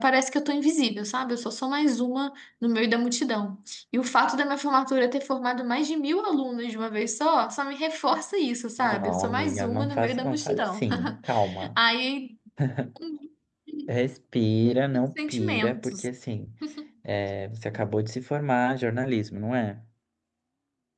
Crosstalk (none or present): present